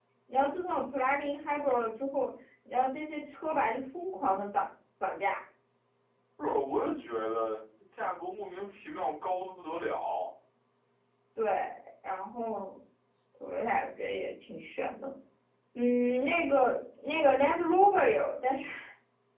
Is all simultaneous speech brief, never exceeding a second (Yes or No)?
Yes